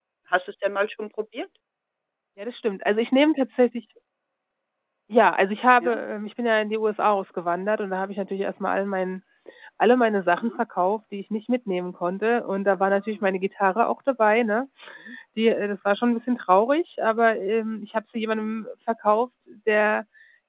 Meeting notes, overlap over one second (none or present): none